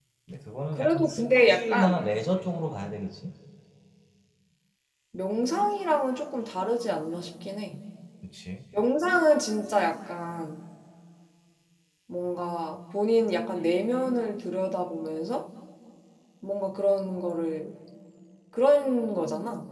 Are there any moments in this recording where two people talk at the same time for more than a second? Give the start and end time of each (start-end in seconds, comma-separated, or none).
0.7-2.1